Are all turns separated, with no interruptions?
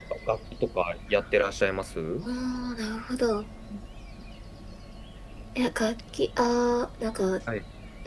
Yes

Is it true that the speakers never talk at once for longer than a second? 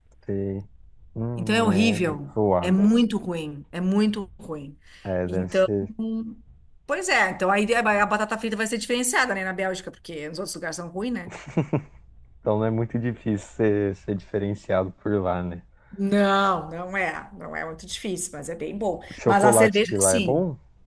No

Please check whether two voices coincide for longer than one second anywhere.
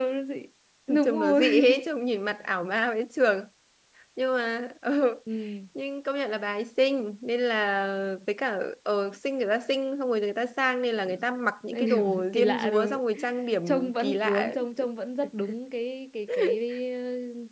Yes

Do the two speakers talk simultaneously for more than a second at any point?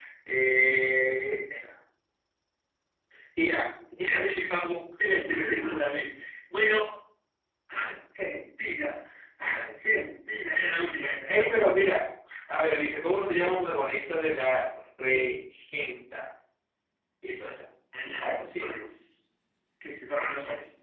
No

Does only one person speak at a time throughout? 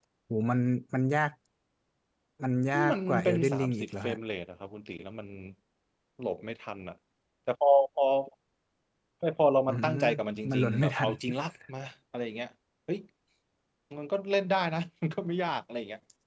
No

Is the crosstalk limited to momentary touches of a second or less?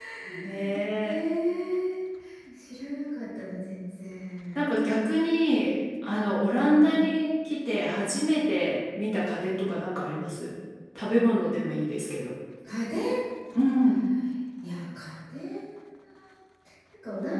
Yes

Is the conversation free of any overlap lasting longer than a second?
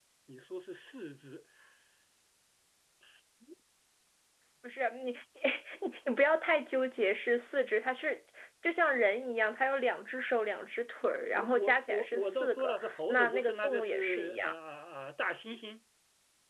No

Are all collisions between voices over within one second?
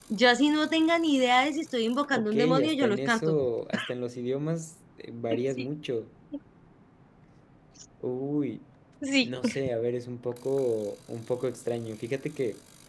No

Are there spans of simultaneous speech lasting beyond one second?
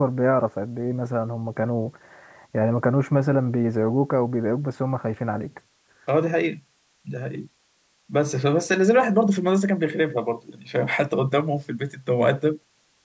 No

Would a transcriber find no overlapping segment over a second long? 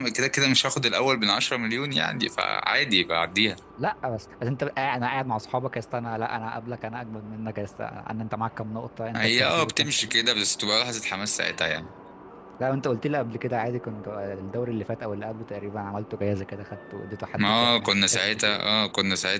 No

